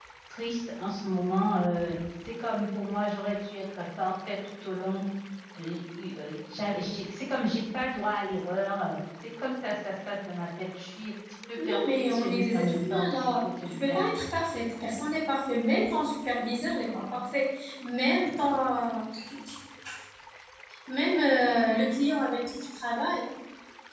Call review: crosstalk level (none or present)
present